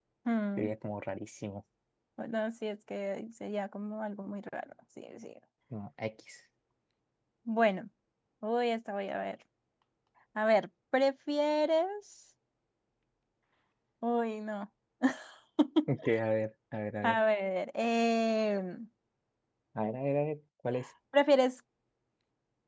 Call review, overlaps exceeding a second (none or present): none